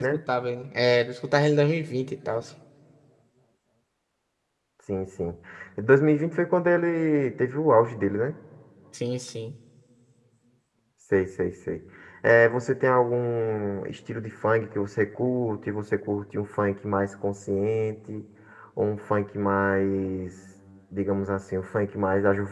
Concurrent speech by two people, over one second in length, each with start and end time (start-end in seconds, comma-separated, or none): none